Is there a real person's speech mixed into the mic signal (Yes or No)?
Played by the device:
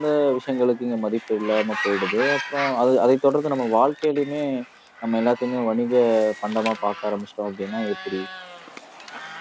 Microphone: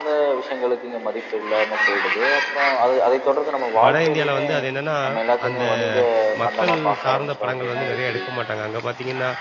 Yes